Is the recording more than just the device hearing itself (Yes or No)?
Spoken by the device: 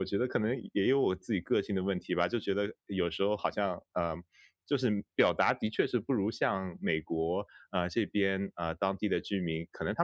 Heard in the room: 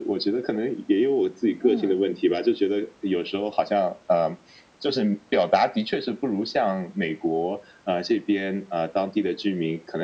Yes